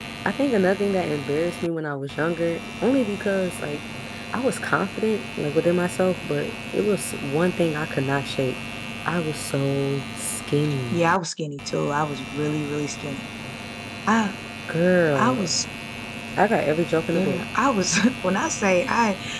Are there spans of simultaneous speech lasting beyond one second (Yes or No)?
No